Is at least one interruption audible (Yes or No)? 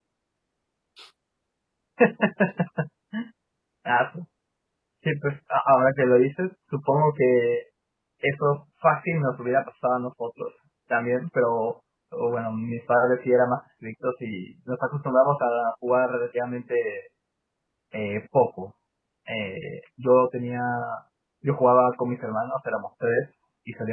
No